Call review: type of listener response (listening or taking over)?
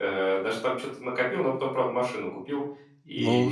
taking over